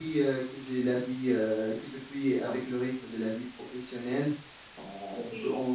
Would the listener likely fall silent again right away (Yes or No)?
Yes